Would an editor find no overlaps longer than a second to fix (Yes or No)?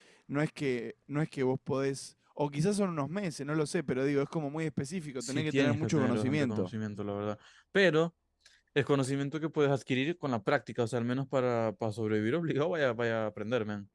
No